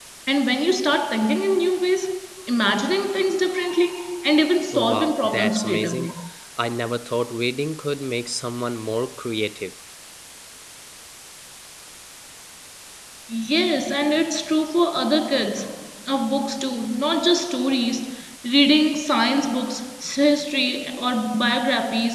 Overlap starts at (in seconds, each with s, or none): 4.7 s